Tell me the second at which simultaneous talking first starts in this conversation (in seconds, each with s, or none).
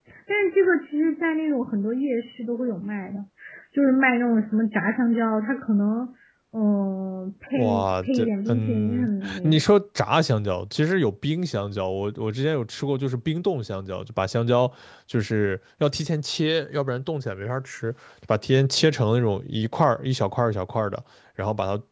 7.5 s